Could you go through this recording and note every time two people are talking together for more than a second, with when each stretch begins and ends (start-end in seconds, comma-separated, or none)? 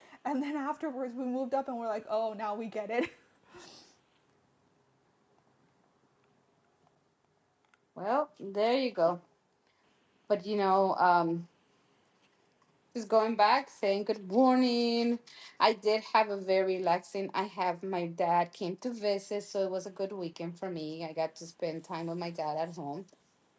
none